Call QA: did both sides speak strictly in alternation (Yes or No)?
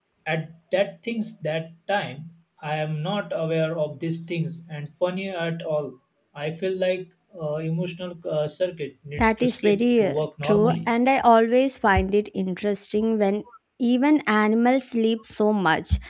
No